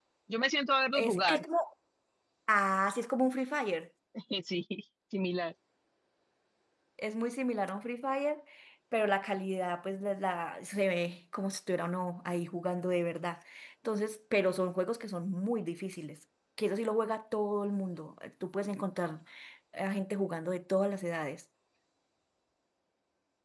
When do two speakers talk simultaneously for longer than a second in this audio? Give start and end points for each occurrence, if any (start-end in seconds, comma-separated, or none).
none